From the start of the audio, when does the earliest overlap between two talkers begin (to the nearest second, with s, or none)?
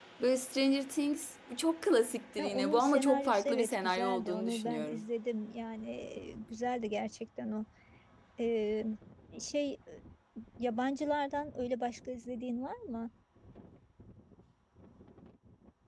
2 s